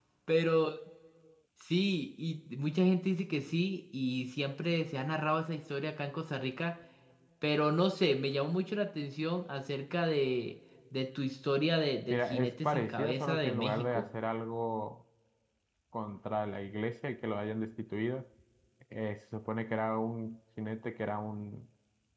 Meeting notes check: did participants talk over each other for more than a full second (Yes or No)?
Yes